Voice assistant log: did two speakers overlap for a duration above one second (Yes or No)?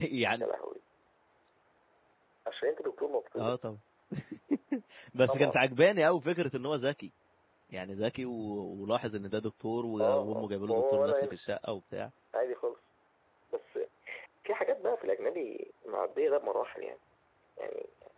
Yes